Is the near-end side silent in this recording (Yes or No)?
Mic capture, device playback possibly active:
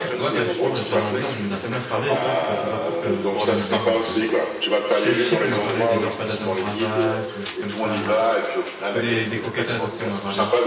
No